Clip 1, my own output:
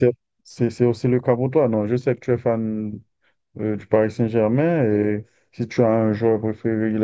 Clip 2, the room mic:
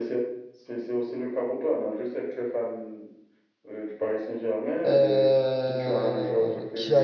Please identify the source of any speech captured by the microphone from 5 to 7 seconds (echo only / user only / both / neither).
both